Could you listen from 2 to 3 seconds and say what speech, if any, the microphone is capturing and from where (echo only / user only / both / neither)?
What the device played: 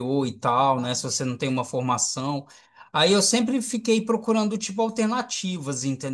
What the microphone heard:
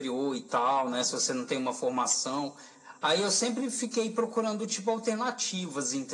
echo only